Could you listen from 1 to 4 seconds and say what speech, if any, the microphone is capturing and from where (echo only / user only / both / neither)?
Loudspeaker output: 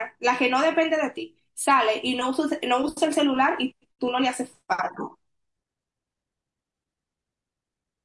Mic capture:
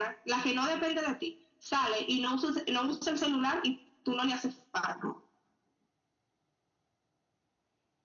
echo only